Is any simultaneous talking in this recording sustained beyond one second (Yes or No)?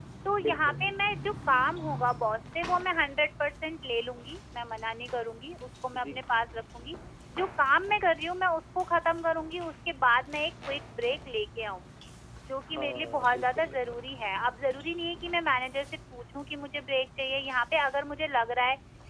Yes